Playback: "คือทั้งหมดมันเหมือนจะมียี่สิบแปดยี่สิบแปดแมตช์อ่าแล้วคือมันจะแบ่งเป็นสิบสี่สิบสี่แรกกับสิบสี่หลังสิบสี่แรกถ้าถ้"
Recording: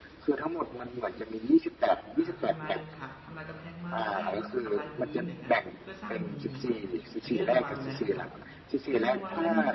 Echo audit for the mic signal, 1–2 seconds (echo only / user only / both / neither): echo only